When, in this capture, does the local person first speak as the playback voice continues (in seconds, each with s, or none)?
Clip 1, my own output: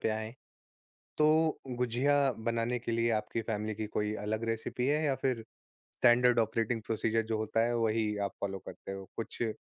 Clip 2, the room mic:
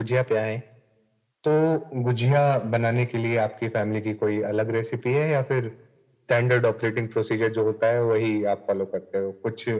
none